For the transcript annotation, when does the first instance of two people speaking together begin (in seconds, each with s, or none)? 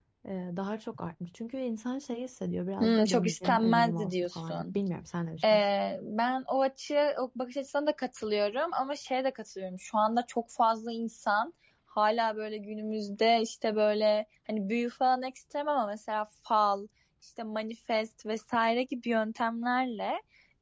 2.8 s